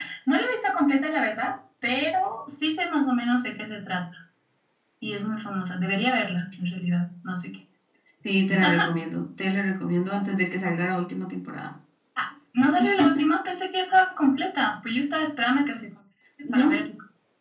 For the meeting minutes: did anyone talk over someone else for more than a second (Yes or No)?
No